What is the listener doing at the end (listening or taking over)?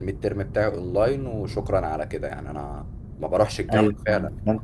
taking over